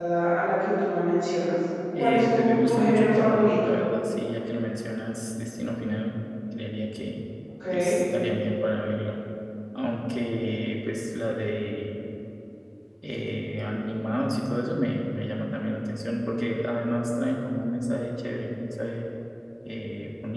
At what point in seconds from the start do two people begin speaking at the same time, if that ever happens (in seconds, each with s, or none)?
1.9 s